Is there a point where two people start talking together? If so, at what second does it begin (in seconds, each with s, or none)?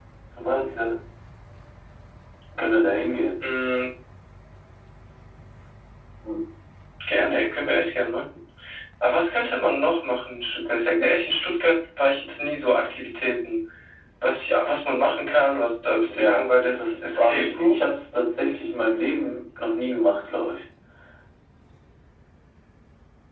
16.0 s